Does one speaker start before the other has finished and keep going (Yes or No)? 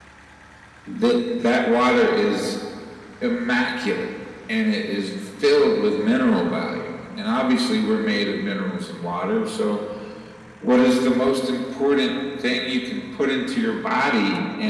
No